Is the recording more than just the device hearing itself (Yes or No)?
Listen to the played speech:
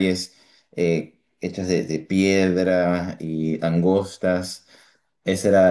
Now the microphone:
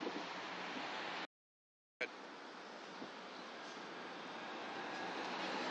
No